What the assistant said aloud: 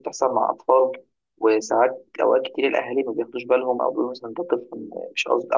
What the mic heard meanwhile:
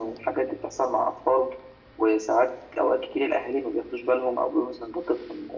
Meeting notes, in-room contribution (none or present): none